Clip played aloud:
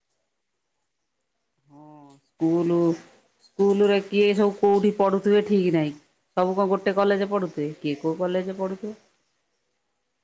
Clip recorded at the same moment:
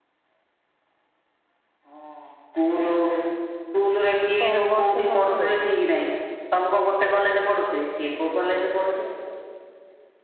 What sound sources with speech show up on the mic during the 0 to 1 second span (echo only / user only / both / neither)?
neither